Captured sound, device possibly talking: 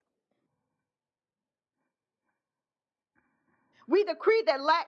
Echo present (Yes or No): No